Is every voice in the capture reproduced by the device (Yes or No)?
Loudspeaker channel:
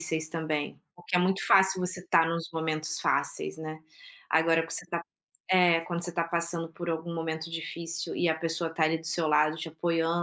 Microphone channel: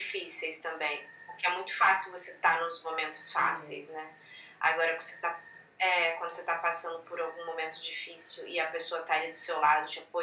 No